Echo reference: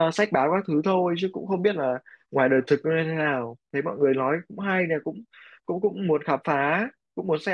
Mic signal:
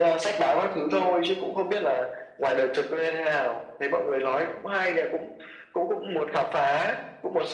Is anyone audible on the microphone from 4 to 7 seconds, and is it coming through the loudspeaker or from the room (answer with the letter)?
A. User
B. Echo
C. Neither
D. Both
B